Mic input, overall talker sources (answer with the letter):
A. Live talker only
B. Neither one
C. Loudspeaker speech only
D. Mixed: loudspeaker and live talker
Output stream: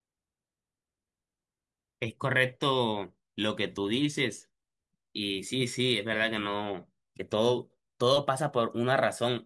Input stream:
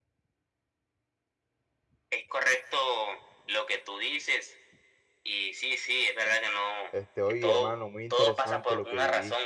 D